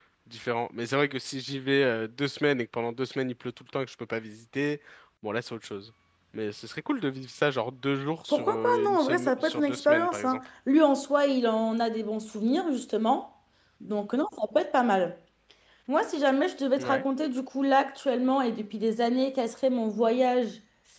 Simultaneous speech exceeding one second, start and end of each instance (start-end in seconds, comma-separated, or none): 8.3-10.4